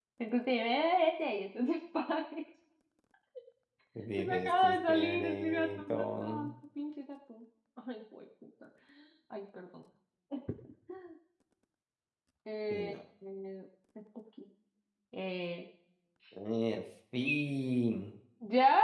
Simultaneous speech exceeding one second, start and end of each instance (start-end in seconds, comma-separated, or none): 4.2-6.5